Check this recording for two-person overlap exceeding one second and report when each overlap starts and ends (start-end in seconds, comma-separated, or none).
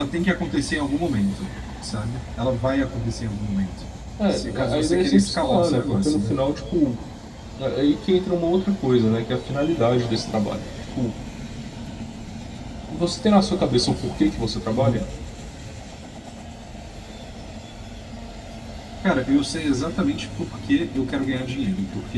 4.3-6.3